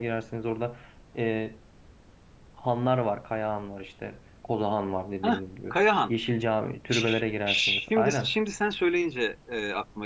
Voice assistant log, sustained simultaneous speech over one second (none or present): present